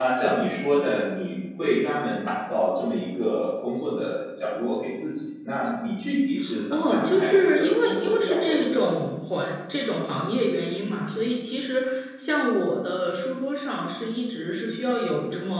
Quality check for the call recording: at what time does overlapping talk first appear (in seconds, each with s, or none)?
6.7 s